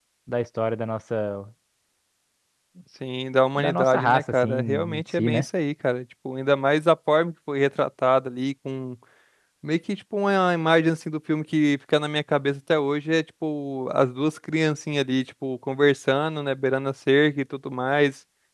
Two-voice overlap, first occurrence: 3.6 s

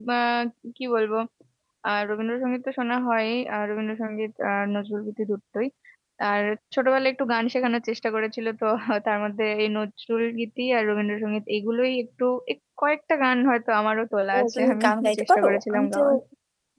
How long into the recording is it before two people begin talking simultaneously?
14.3 s

